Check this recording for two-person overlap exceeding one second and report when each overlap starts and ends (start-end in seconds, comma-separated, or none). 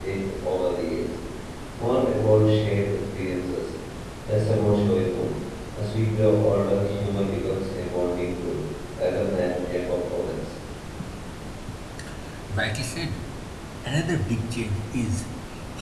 none